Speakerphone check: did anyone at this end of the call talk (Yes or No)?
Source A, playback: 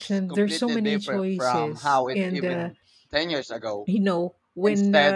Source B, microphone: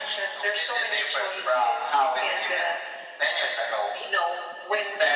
No